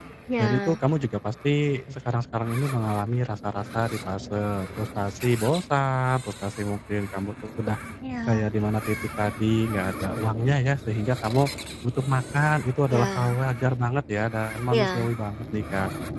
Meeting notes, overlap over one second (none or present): none